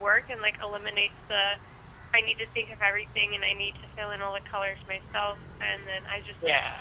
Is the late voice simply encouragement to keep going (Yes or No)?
Yes